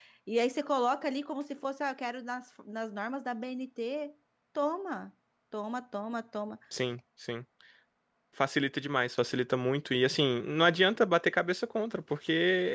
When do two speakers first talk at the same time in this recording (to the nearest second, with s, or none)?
none